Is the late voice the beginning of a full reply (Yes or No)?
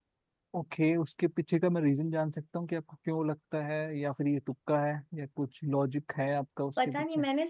Yes